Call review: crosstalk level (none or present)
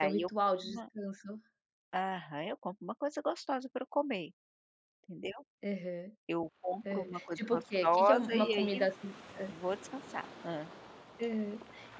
present